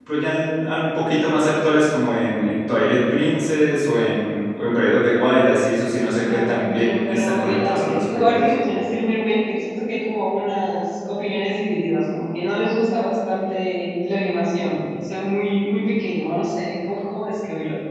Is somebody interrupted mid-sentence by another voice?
Yes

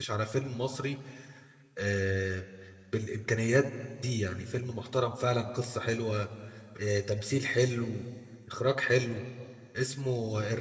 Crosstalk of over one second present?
No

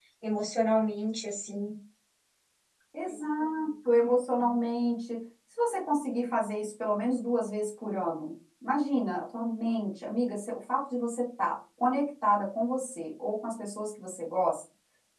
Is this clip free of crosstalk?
Yes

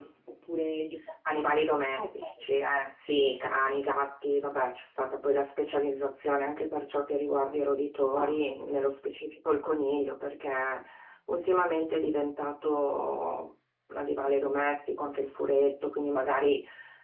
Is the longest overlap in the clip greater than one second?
No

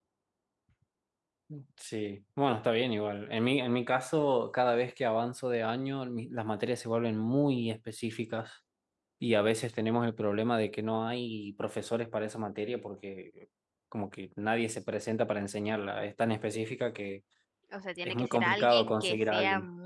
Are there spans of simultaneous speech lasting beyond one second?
Yes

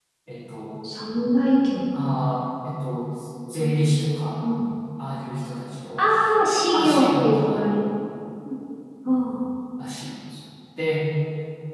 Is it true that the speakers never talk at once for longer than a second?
No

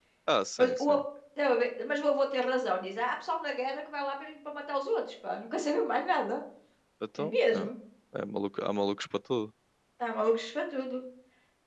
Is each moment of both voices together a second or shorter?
Yes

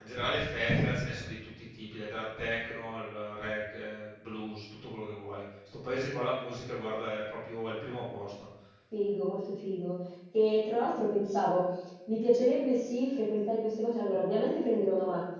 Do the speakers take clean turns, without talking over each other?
Yes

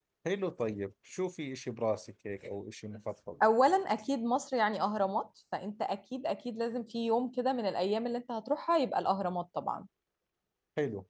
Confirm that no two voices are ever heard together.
Yes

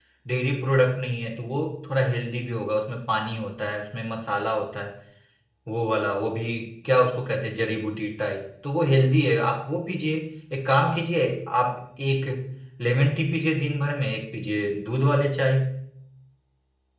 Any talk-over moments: No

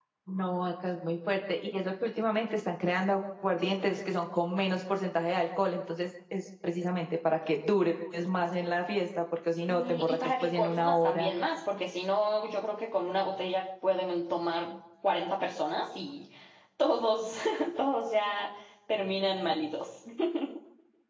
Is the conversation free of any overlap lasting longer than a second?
No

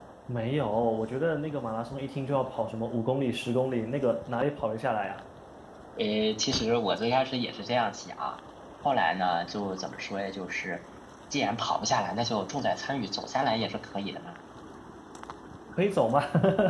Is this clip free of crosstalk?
Yes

